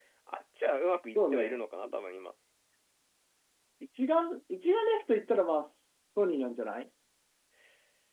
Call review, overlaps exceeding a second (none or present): none